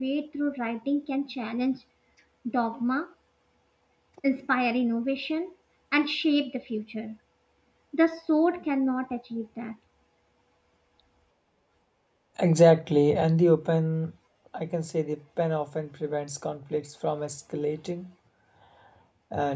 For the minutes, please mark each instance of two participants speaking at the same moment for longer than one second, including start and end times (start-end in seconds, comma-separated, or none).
none